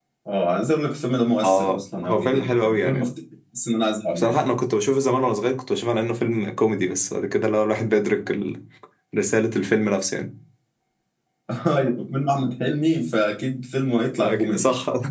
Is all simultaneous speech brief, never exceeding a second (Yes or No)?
No